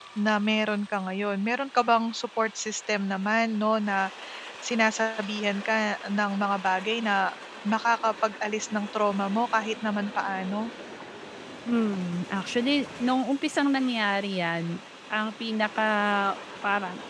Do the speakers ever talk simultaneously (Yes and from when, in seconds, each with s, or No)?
No